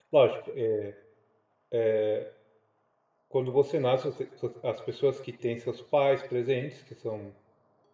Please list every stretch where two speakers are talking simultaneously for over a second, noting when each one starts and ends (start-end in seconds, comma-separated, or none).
none